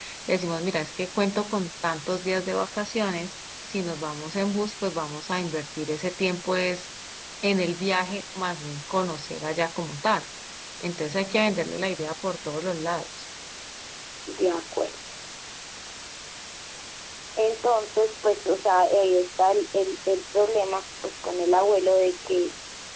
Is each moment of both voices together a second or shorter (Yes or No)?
Yes